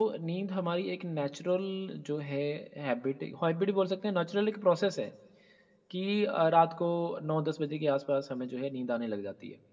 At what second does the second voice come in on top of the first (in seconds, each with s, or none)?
none